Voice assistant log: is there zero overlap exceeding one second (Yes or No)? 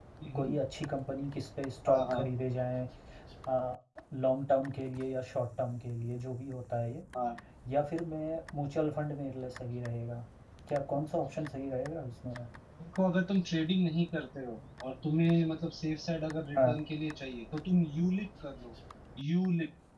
Yes